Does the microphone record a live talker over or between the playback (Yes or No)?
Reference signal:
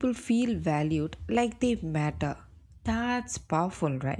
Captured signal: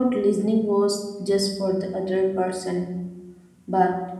Yes